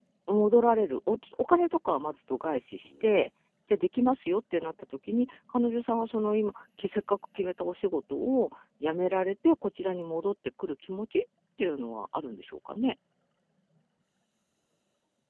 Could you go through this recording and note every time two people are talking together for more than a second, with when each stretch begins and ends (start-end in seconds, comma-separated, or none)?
none